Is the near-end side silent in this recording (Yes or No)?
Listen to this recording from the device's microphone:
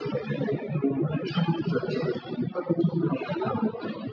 Yes